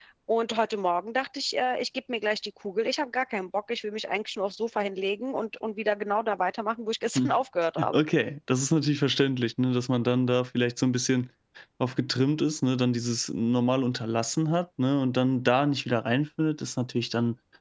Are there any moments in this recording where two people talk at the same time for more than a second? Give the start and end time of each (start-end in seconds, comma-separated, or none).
none